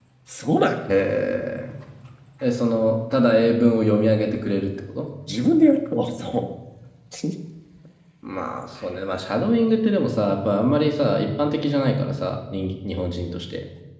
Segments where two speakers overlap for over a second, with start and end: none

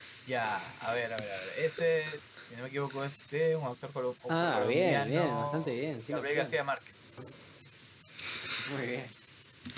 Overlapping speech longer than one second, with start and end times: 4.3-5.5

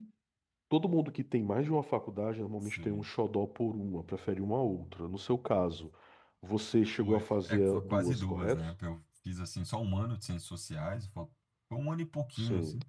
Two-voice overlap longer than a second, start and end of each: 7.0-8.7

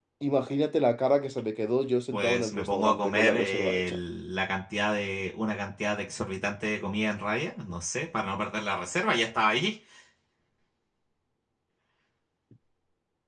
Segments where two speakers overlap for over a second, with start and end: 2.1-4.0

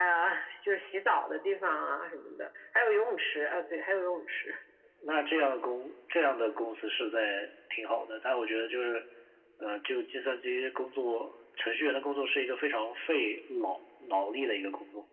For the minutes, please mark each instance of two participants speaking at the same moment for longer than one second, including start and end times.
none

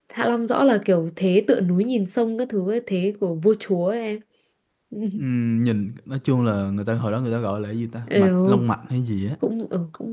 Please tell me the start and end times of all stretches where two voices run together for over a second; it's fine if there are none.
none

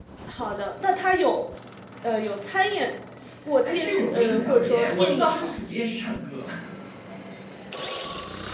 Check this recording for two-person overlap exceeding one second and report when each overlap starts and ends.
3.6-5.6

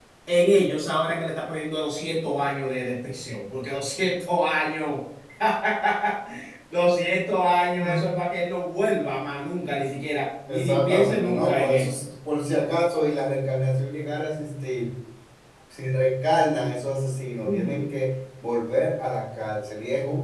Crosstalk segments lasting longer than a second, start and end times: 10.5-12.0

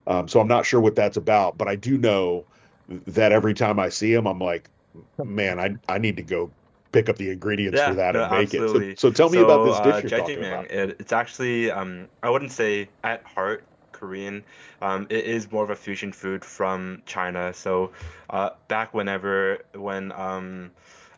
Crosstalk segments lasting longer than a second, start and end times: 7.7-10.6

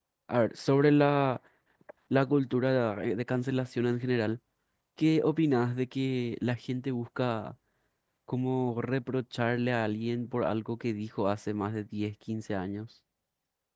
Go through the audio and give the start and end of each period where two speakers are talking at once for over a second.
none

